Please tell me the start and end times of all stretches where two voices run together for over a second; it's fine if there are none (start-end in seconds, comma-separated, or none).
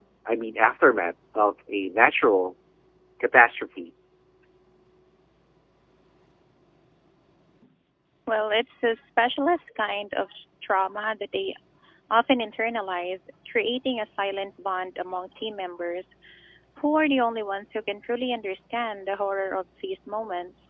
none